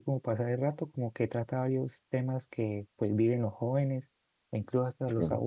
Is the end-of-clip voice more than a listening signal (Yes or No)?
No